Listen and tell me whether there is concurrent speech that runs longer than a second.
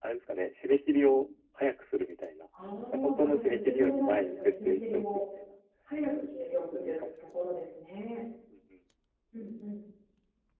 Yes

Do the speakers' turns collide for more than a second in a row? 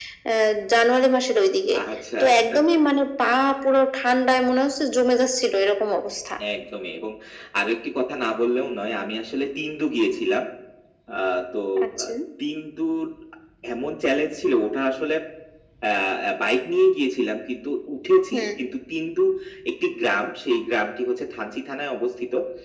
No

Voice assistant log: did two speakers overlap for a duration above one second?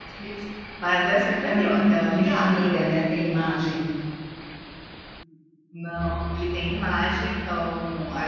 Yes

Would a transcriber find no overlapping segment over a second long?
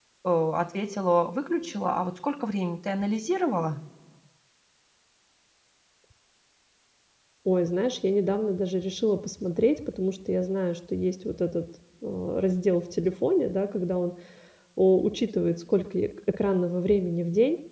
Yes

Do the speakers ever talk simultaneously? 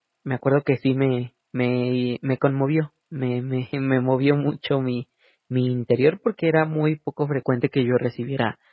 No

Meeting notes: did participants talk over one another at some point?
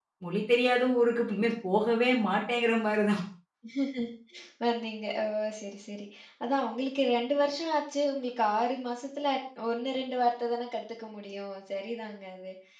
No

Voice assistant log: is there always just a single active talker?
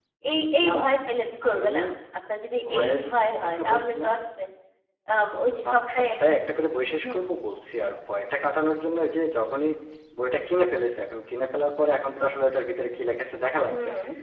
No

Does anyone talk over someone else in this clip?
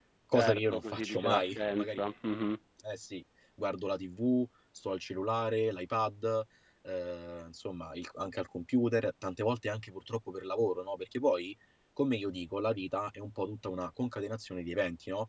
Yes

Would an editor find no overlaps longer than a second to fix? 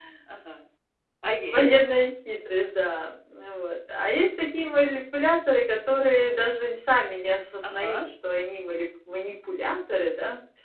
Yes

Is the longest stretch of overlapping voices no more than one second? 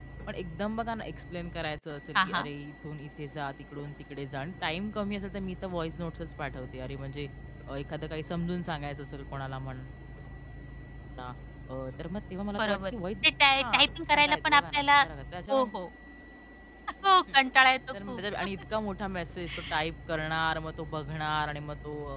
No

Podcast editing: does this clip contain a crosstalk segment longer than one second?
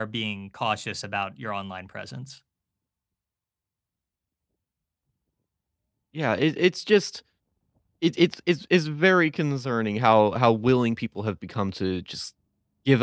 No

